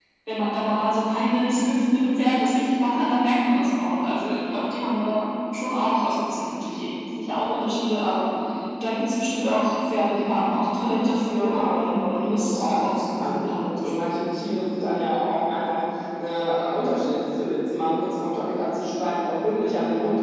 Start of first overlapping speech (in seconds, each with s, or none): 11.4 s